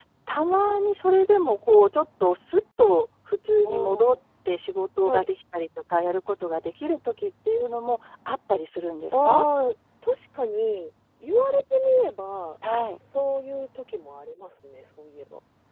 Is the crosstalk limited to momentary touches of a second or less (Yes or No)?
Yes